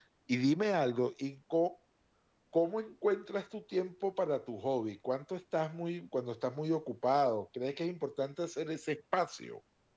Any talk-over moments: No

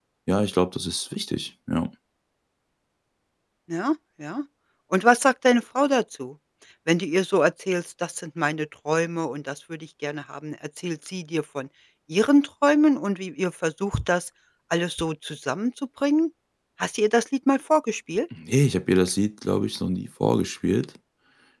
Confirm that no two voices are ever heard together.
Yes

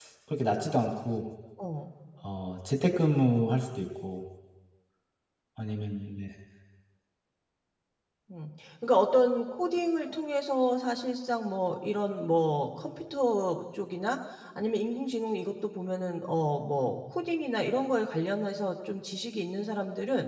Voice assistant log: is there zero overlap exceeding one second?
Yes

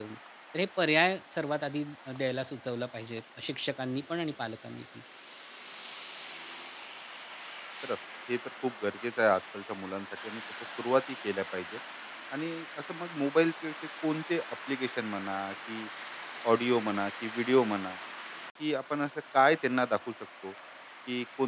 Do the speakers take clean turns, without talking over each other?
Yes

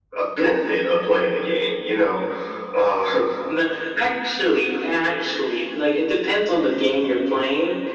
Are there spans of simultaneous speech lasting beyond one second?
No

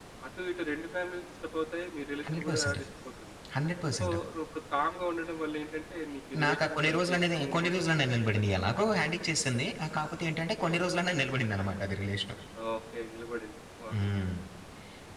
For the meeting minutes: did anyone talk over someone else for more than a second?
Yes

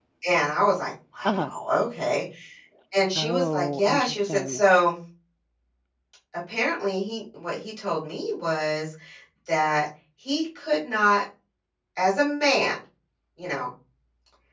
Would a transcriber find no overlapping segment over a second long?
No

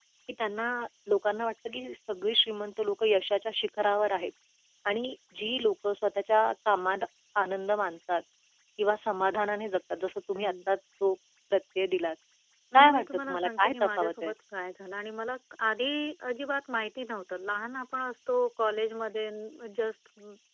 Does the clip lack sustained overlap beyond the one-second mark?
No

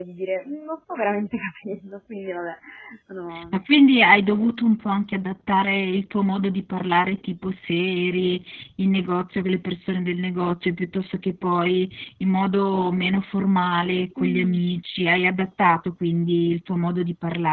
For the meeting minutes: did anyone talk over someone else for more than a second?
No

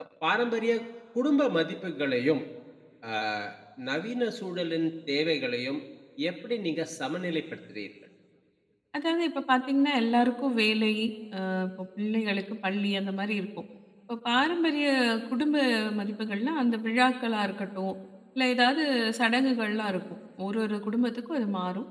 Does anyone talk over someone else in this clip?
No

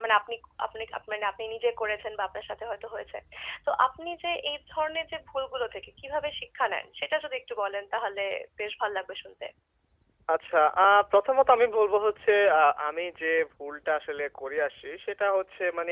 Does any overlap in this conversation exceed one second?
No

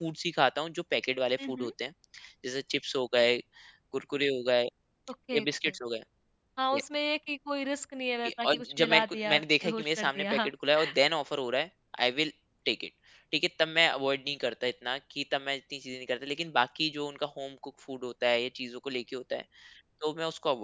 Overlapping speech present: Yes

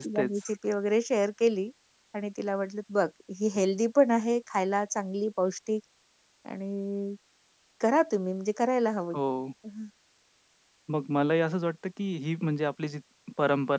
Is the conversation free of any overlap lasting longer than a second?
Yes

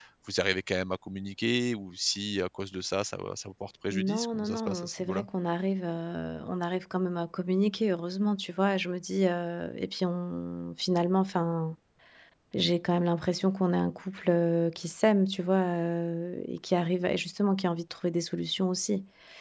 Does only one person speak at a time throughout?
No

